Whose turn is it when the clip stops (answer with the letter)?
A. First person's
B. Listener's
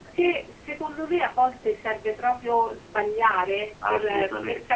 A